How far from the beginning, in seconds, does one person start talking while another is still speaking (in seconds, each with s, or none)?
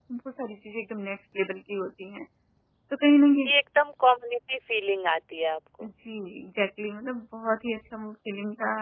none